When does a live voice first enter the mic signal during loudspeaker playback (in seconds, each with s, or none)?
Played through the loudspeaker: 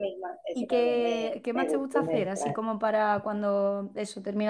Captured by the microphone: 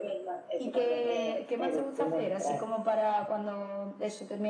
none